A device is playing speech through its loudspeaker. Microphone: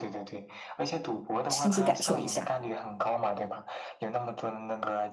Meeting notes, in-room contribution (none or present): present